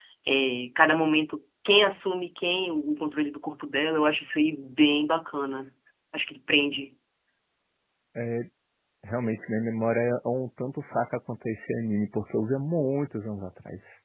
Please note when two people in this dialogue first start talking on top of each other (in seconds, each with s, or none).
none